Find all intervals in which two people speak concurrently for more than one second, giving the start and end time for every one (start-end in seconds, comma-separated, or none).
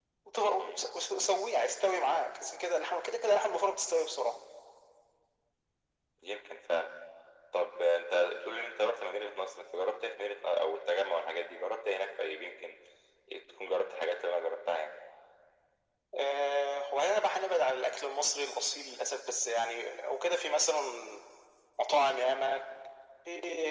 none